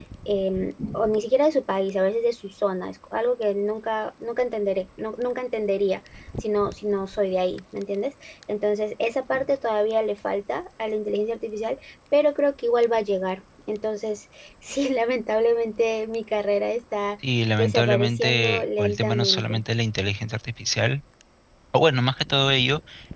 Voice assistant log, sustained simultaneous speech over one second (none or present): present